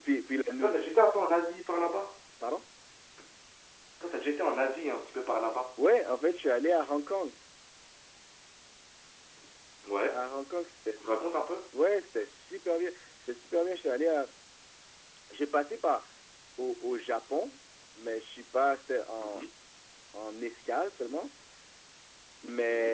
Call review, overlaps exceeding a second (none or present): none